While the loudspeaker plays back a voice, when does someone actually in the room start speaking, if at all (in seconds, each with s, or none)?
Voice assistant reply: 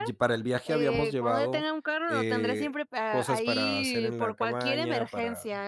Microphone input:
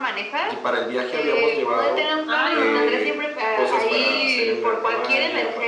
2.2 s